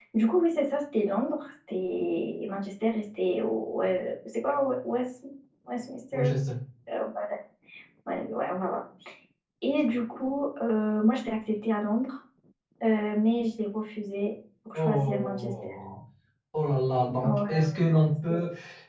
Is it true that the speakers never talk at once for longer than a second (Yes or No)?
No